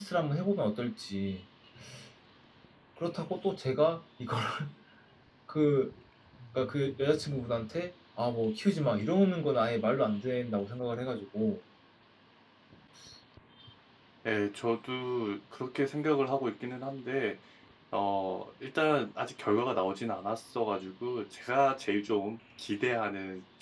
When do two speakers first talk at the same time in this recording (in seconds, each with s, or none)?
none